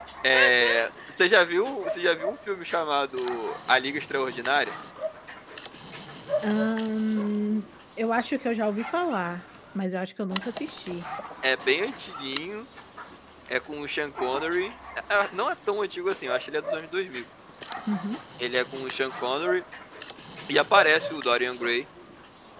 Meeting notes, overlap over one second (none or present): none